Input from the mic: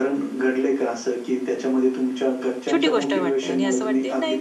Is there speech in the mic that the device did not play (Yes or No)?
Yes